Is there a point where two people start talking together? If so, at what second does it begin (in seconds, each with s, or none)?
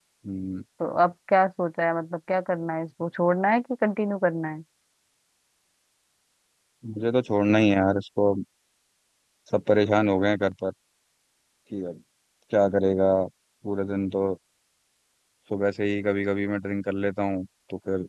none